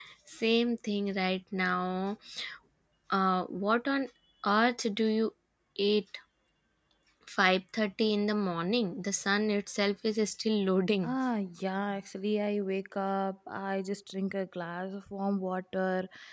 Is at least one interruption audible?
No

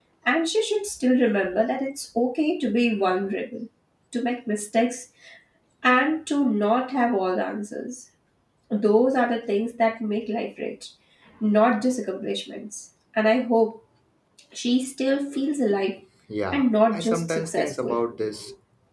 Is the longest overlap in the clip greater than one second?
Yes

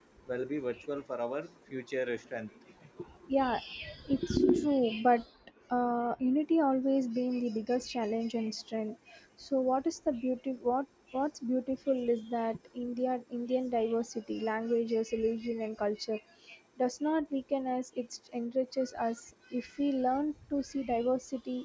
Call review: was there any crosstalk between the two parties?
No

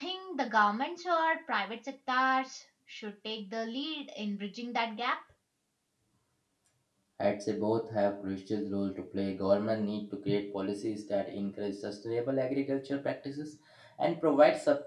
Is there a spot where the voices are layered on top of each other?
No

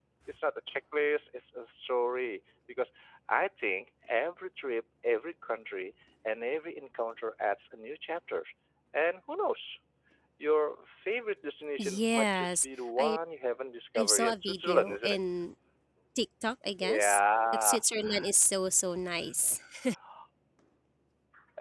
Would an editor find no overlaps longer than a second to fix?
No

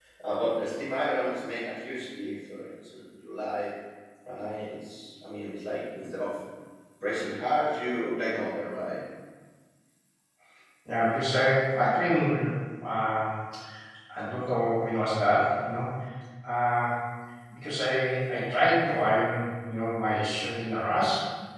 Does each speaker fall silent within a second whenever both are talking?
Yes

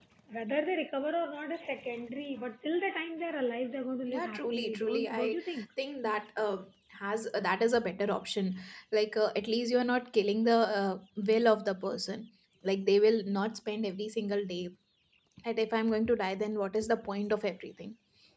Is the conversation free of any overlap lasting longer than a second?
No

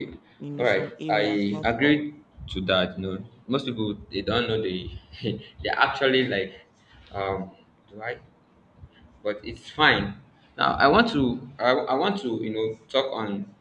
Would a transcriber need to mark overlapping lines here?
Yes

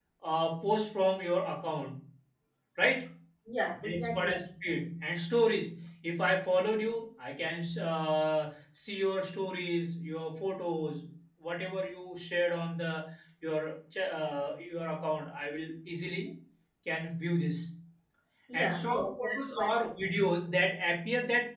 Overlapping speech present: Yes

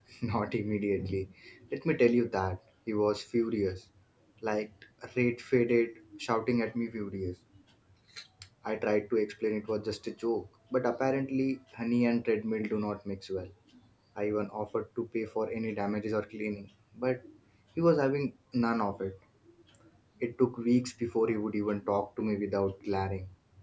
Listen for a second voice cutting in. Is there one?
No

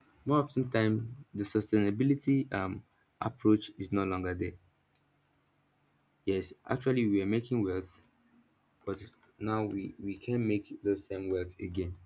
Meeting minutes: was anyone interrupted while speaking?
No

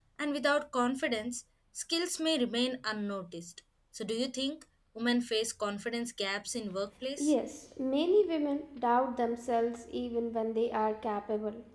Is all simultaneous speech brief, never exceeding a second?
Yes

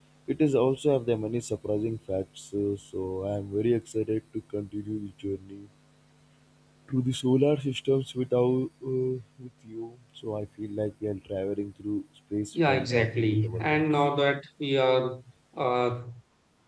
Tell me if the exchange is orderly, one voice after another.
No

